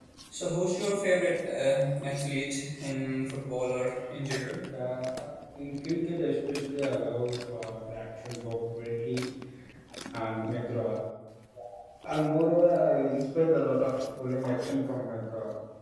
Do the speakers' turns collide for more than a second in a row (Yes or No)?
No